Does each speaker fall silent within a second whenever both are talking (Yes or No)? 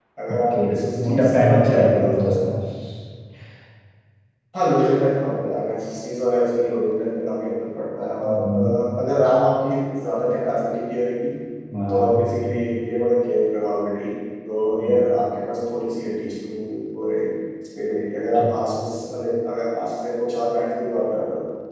No